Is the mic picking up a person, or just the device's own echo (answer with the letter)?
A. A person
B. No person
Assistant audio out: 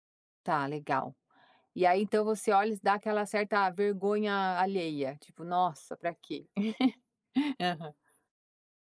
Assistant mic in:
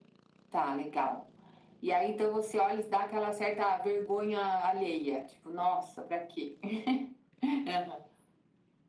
B